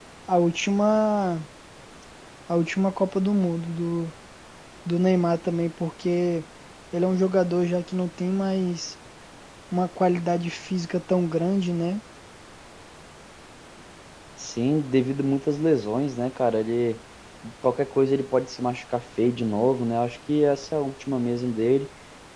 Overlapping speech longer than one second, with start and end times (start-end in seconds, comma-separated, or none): none